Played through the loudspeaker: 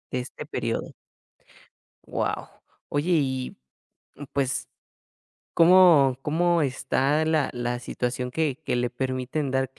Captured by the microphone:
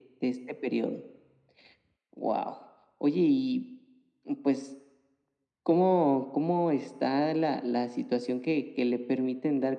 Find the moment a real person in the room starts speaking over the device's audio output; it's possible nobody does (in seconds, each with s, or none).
none